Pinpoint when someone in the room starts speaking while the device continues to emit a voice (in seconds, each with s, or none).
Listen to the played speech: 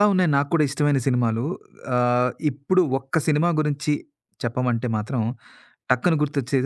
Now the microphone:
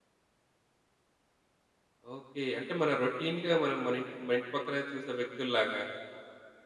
2.1 s